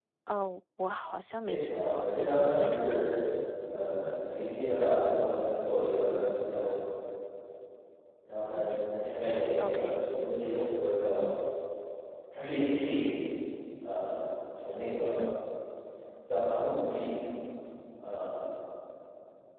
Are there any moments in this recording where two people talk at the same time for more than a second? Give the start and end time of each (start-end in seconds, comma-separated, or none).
1.4-3.0